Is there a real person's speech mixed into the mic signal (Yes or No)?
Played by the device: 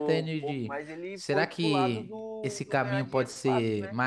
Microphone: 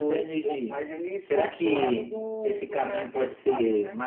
No